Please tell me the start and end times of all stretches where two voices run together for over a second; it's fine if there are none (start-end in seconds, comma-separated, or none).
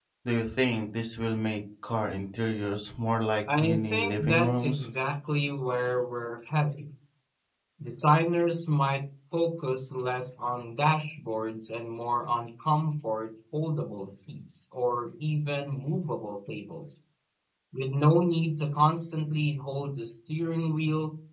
3.6-4.9